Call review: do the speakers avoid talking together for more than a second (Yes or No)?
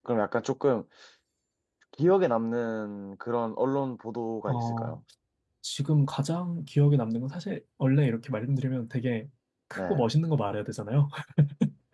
Yes